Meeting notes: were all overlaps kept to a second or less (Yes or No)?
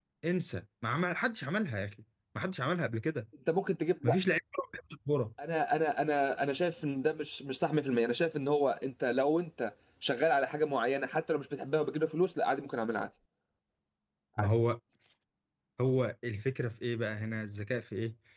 Yes